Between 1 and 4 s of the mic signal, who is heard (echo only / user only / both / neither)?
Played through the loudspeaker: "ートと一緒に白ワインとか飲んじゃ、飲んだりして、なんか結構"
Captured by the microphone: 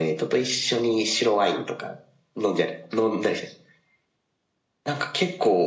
echo only